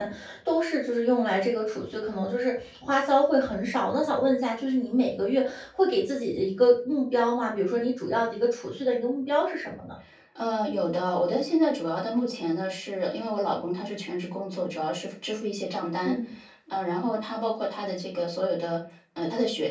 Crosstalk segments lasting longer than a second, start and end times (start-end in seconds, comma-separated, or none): none